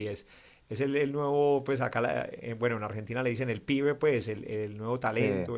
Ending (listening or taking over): listening